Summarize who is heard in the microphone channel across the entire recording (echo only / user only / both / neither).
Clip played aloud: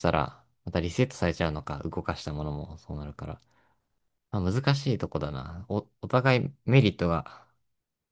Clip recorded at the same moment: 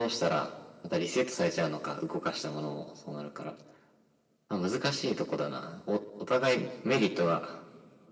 echo only